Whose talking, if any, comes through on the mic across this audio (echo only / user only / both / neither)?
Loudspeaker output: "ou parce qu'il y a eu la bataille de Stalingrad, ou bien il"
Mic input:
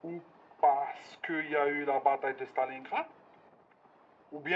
echo only